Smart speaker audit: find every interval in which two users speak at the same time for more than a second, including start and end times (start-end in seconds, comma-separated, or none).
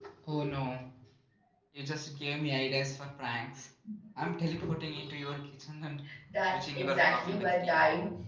6.5-7.8